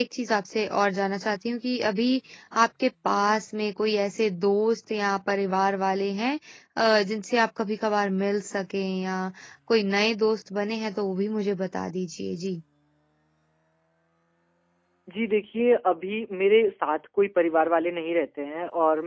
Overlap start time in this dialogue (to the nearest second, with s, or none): none